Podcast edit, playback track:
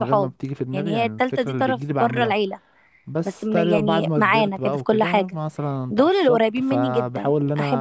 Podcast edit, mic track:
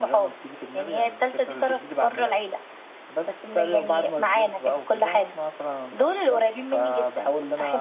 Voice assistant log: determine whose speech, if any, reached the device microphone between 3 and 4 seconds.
echo only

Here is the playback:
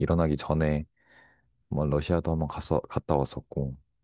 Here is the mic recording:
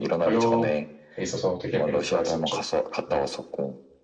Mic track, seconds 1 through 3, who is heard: both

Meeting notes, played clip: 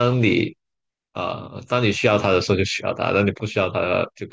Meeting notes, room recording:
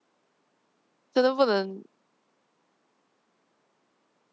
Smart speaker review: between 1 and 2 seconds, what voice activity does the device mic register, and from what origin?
user only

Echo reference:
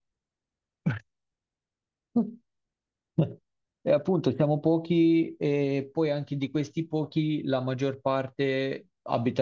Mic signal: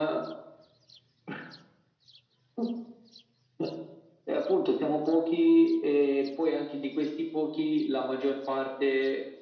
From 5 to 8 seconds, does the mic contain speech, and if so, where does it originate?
echo only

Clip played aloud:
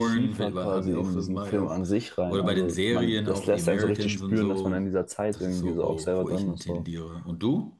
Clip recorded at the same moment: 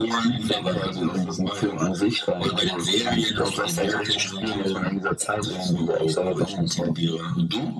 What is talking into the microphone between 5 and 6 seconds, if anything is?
echo only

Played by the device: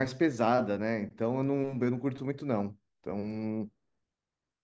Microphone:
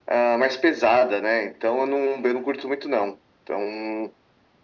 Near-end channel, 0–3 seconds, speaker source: echo only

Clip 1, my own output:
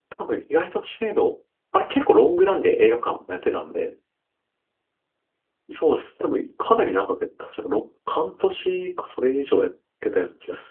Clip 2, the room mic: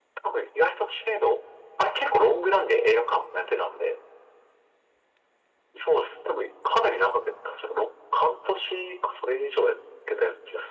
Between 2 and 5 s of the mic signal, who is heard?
echo only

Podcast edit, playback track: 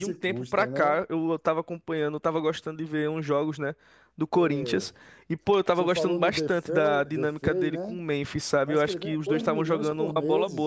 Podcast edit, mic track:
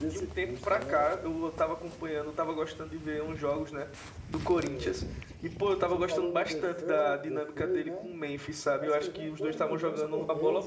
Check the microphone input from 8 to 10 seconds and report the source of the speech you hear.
echo only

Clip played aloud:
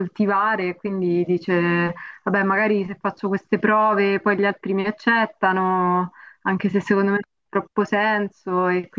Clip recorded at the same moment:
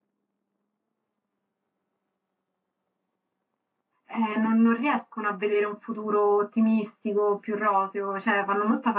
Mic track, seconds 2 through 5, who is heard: user only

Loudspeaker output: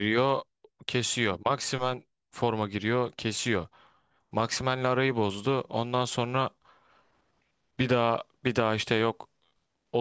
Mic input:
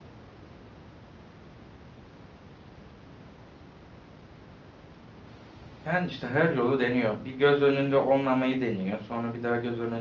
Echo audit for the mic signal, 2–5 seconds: neither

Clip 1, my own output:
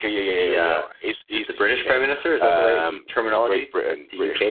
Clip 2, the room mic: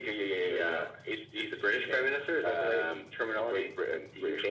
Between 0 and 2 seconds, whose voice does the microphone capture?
echo only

